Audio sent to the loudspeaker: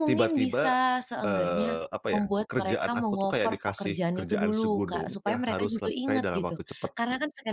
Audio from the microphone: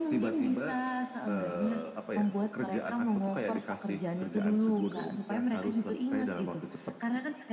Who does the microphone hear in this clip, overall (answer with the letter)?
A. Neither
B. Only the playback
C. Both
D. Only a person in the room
B